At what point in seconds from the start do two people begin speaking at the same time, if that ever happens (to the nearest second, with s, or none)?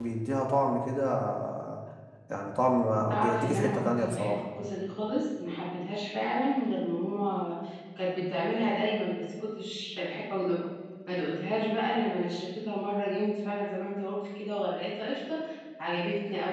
3 s